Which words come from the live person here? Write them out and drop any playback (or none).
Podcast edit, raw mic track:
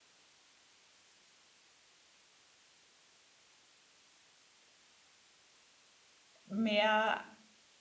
mehr